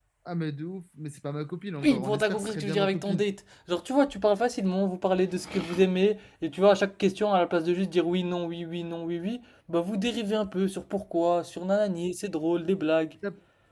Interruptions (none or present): present